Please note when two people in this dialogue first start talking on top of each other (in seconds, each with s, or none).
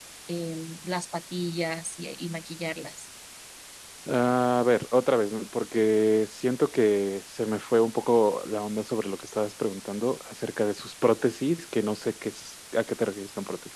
none